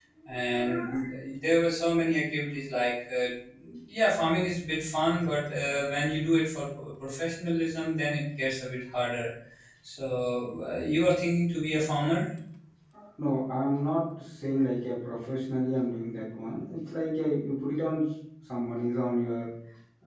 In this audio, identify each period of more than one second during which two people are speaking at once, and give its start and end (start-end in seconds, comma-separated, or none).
none